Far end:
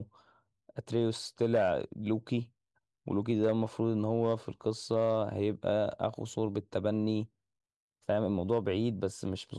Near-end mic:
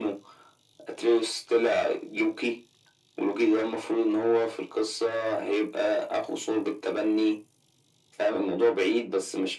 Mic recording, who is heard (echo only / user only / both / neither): echo only